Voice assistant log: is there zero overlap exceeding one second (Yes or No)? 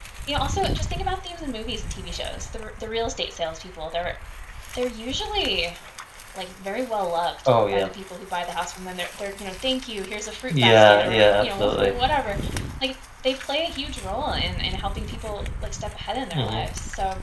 No